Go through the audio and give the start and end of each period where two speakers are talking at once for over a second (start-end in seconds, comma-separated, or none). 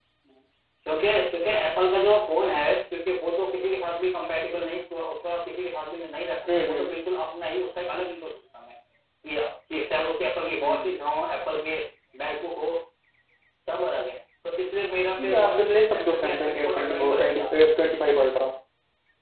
15.2-17.6